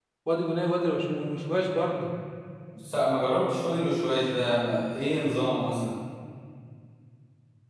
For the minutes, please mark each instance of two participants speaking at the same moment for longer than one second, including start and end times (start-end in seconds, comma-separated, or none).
none